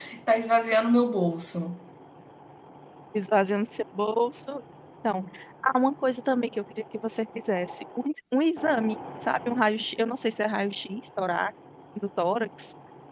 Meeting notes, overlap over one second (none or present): none